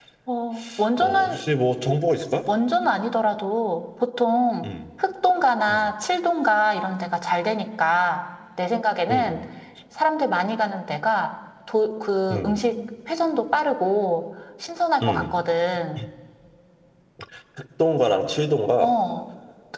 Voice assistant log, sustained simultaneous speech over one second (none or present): none